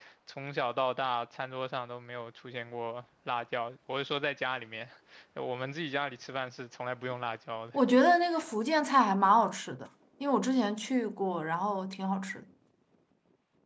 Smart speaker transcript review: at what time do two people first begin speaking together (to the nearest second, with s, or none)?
none